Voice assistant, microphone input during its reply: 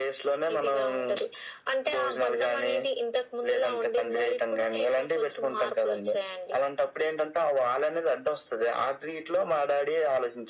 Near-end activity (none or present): none